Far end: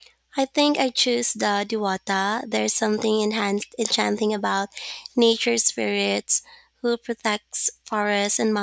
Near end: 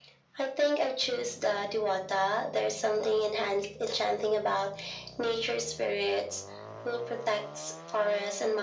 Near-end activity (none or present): none